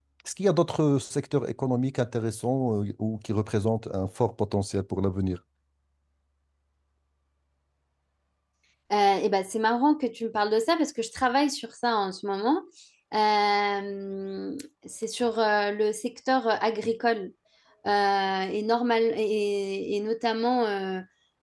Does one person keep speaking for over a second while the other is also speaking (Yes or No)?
No